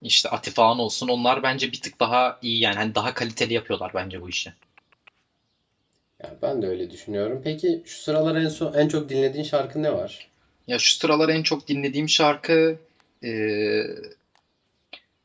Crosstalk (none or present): none